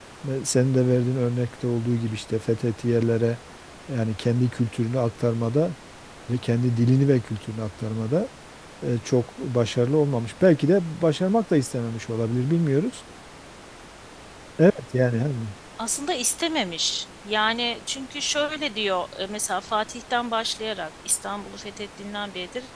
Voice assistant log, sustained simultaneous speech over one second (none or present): none